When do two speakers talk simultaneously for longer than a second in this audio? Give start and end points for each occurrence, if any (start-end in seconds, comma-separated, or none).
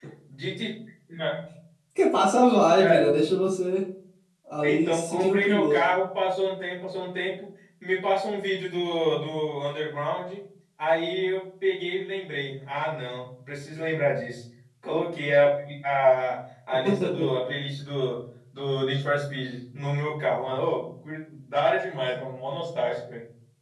4.6-5.9